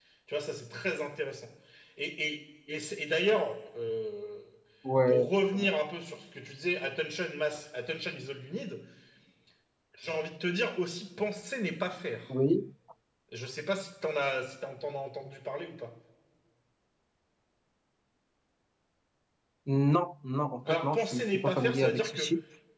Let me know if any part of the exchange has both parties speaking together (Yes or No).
Yes